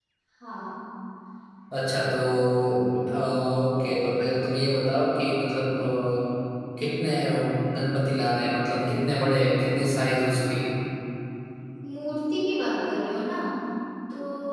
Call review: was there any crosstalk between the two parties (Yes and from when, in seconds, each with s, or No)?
No